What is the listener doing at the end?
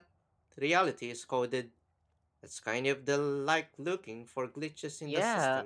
taking over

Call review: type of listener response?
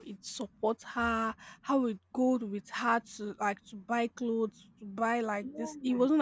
listening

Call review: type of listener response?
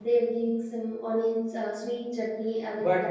taking over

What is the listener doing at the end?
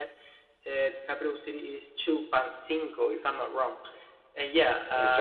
listening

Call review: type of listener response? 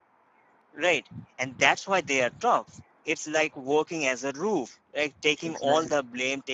listening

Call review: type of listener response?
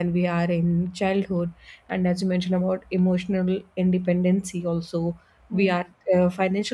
listening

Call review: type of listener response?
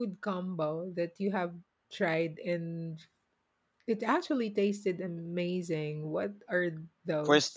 taking over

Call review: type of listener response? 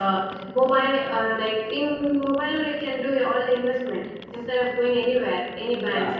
taking over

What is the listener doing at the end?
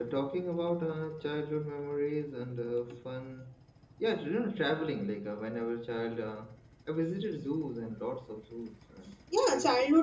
taking over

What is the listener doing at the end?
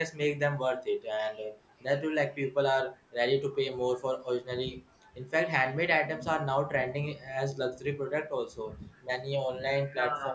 listening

